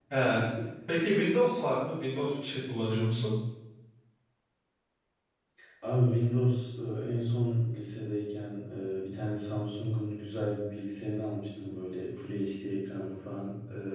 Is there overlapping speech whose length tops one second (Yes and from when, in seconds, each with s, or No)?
No